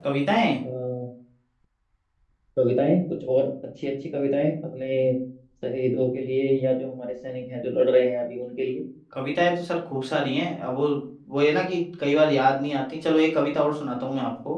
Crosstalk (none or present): none